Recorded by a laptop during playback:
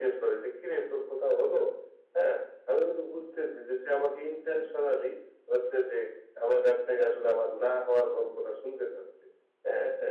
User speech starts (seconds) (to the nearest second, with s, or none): none